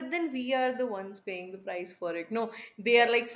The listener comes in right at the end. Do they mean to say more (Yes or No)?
No